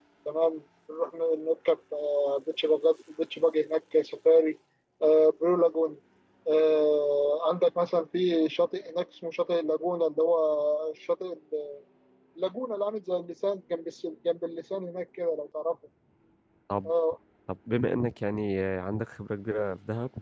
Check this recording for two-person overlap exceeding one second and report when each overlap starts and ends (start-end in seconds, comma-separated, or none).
none